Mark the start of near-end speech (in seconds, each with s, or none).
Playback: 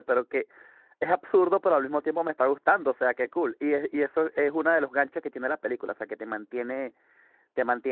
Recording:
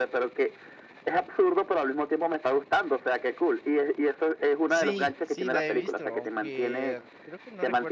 4.7 s